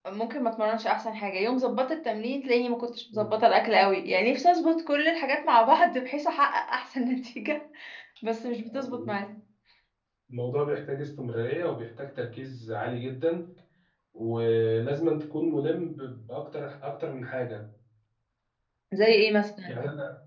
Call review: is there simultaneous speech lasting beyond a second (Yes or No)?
No